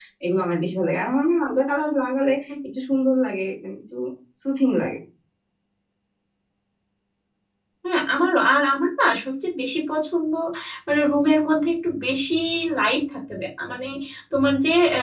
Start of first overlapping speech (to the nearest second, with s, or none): none